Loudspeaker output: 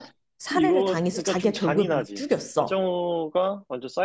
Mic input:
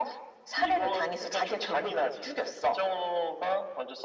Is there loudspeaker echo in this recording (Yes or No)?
Yes